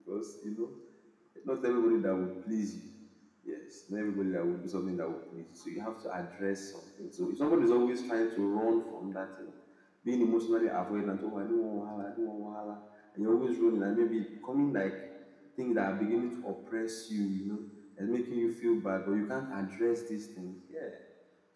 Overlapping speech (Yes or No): No